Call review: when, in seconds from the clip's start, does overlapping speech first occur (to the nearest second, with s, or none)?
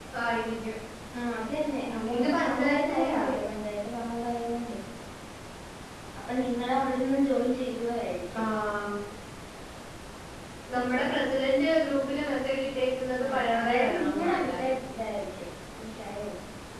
2 s